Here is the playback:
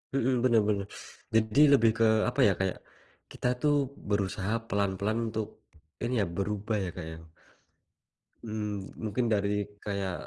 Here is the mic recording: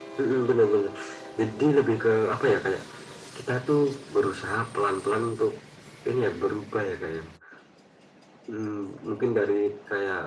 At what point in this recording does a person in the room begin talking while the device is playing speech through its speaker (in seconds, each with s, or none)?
none